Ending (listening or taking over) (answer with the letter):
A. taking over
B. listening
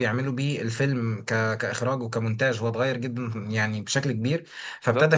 B